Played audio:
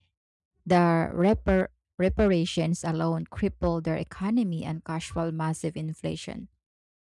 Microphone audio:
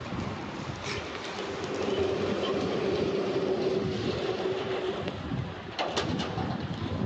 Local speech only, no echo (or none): none